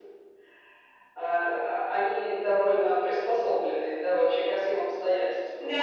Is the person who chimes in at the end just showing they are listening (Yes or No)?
No